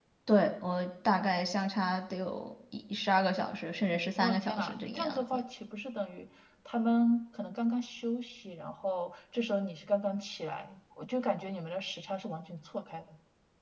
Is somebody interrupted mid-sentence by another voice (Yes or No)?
Yes